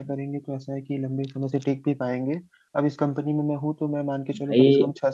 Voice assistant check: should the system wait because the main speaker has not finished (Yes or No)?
Yes